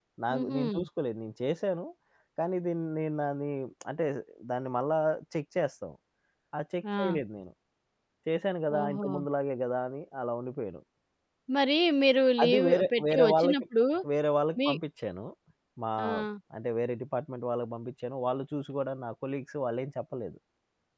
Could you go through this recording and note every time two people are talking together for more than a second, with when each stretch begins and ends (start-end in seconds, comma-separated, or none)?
12.4-13.6